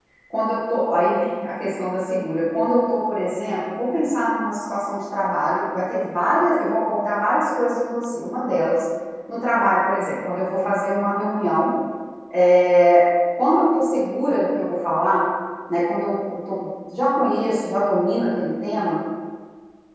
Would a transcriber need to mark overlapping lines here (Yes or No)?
No